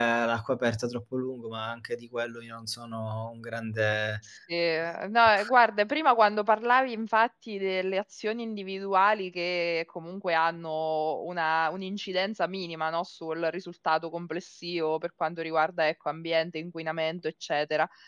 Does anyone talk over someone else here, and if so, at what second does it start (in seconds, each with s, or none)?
none